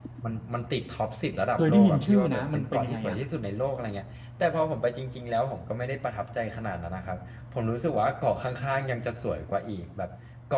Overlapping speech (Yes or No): Yes